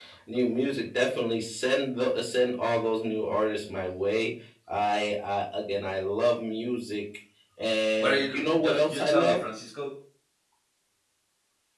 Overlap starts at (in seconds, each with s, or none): 8.0 s